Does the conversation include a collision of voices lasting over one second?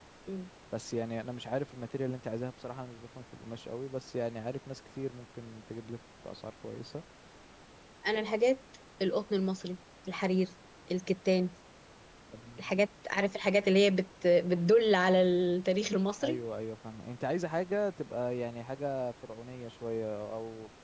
No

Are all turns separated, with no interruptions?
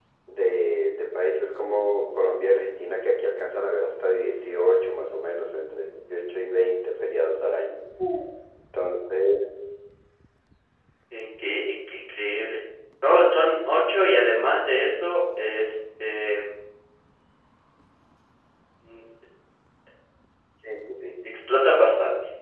Yes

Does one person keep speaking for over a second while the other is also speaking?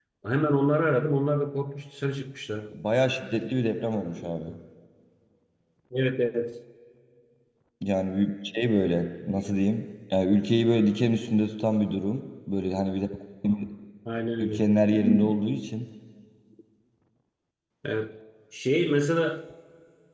No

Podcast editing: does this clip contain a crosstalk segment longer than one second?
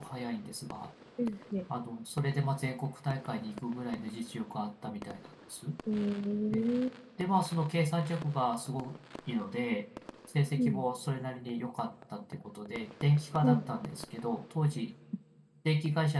No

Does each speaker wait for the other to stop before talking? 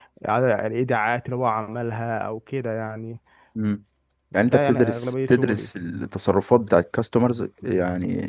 No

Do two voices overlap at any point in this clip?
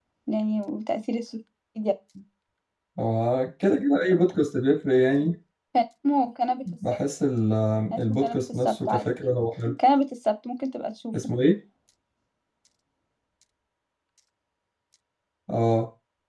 Yes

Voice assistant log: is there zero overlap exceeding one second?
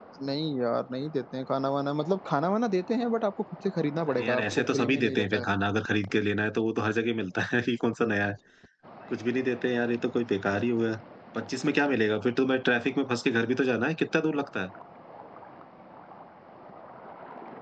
No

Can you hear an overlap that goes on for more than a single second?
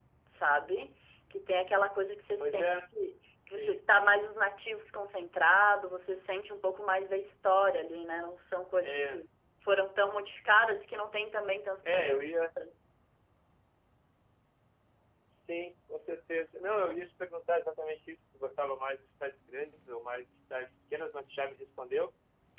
No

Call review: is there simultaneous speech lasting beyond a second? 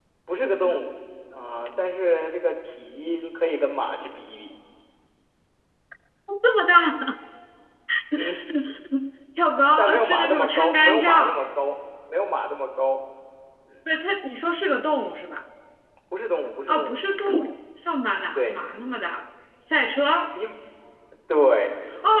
Yes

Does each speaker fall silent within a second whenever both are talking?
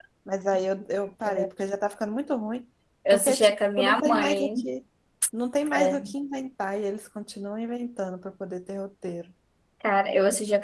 No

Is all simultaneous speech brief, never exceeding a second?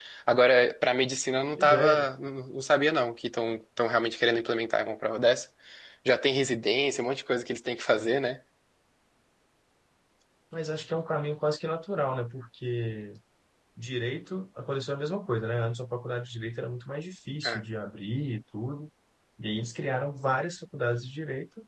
Yes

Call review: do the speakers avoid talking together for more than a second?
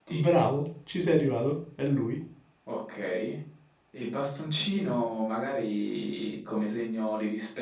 Yes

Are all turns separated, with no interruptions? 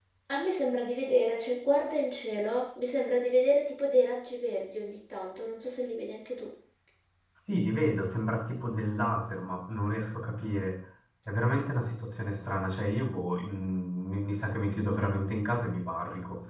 Yes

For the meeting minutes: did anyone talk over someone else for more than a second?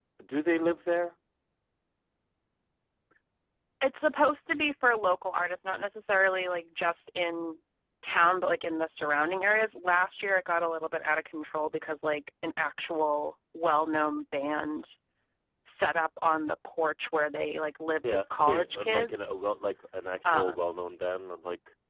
Yes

